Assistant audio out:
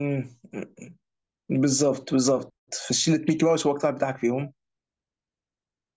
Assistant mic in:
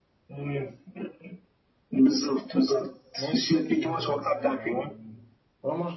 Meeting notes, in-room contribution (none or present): present